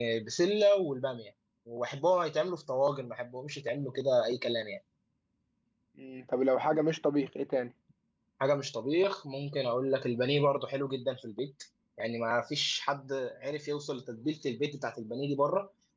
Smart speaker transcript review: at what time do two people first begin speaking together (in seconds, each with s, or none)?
none